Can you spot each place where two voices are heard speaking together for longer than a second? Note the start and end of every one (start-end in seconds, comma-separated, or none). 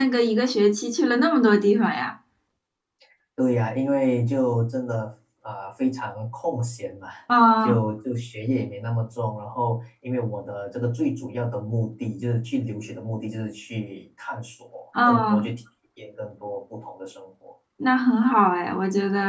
none